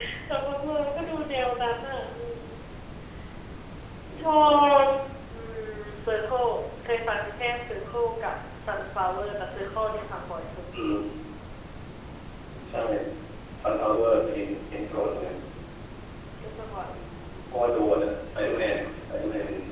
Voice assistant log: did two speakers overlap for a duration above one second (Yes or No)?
No